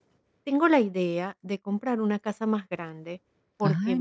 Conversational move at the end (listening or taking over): listening